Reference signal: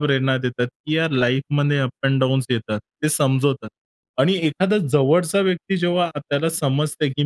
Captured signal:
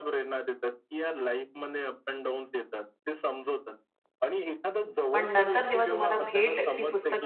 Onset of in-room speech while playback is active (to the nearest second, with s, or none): 5 s